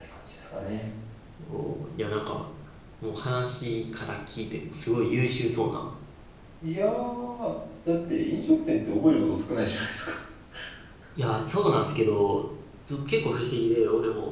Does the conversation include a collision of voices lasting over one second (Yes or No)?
No